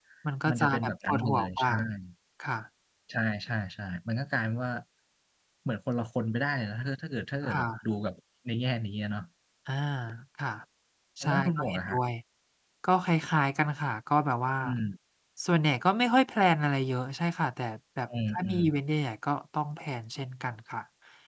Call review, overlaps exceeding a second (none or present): present